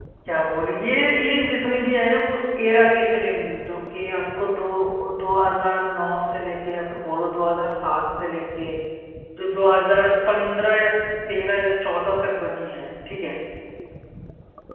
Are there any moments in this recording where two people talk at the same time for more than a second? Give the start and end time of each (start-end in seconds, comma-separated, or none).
none